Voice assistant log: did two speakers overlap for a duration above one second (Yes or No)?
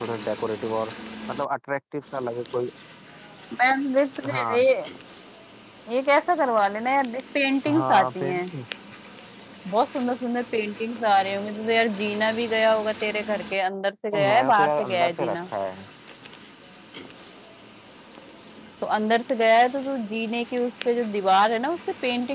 Yes